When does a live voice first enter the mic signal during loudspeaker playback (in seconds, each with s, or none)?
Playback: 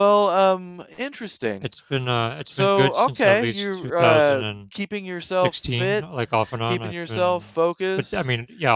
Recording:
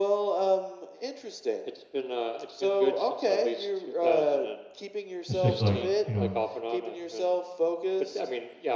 5.3 s